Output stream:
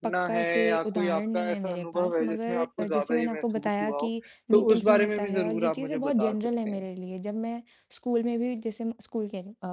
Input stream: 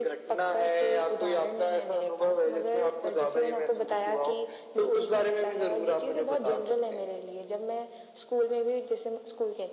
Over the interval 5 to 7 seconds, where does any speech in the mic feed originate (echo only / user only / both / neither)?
echo only